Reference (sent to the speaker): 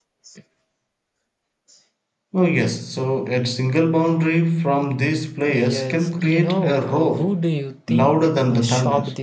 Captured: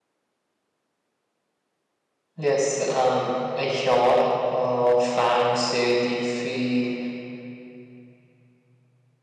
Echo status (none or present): none